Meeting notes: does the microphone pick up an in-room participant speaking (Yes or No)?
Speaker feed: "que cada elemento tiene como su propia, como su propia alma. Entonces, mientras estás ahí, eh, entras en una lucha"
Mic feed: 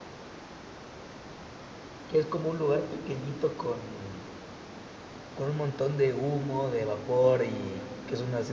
Yes